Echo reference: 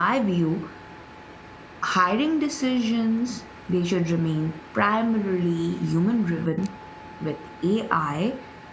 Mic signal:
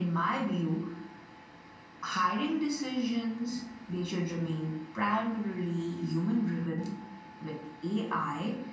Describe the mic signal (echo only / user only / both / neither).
echo only